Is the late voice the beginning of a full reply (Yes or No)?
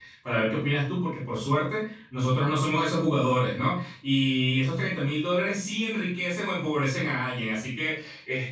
No